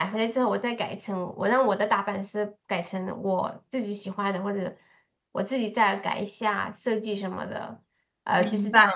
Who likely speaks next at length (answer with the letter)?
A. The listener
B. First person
B